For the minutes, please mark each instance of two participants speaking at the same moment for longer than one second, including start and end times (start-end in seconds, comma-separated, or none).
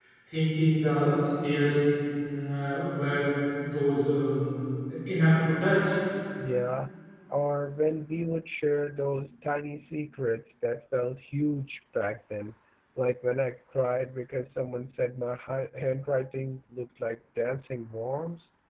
none